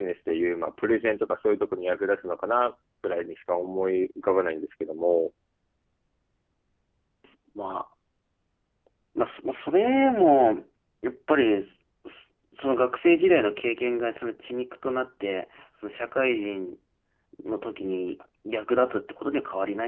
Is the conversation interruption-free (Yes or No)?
Yes